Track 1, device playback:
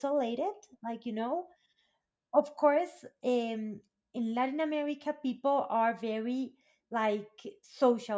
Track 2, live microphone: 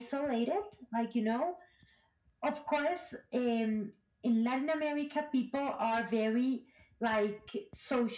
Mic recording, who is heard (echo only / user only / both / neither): echo only